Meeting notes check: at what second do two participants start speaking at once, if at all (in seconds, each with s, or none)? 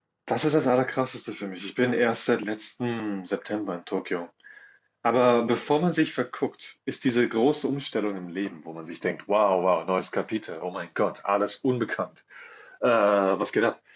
none